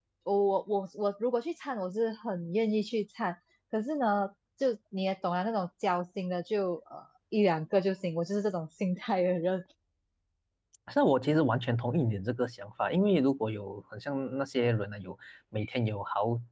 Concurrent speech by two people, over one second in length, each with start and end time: none

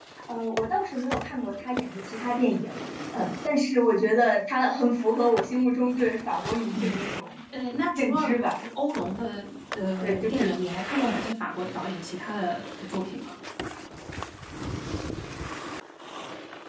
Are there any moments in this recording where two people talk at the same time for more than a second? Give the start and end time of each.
none

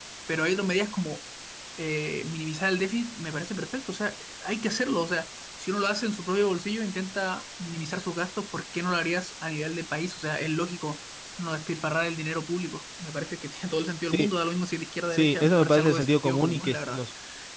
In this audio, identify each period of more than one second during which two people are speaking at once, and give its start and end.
15.1-17.0

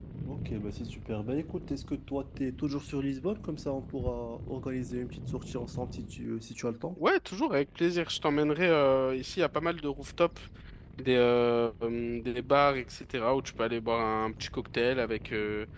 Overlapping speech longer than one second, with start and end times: none

